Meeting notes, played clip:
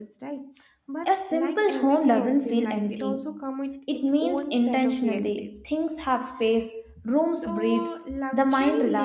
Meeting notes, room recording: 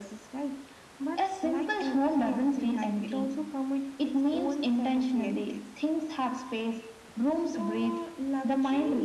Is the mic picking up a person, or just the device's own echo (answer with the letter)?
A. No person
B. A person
A